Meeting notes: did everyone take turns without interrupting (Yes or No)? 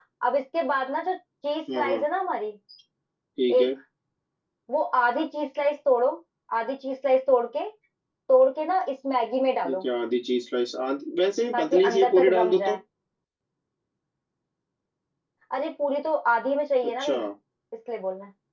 No